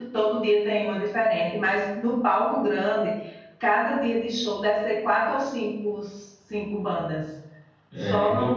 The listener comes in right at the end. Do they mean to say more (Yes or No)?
Yes